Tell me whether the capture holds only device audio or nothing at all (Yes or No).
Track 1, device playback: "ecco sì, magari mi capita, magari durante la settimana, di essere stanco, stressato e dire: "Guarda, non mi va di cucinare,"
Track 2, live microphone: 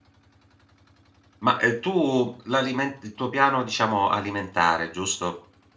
No